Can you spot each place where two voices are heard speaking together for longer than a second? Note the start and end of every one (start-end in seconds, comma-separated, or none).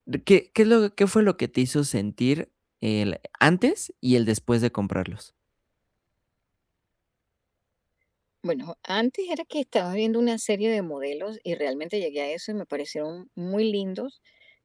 none